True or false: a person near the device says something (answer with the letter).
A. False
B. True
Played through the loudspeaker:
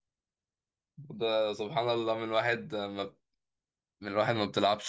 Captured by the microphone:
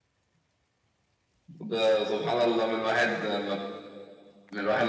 A